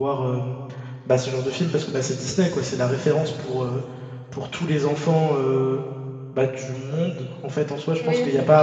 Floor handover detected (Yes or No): Yes